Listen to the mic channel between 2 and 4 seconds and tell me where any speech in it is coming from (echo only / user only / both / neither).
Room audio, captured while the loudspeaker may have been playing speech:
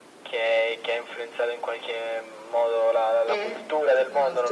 both